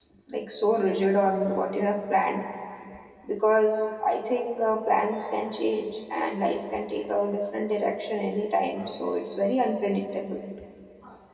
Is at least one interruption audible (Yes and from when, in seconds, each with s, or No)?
No